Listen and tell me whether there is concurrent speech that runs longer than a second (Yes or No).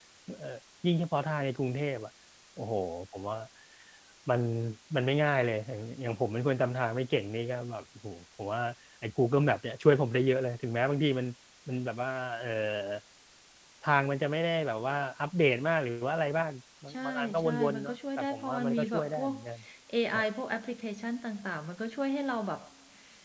Yes